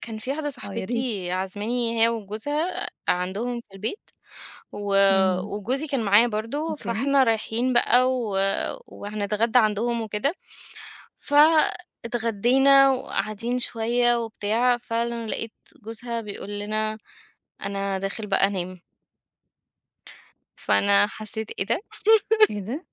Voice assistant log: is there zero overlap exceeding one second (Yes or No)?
Yes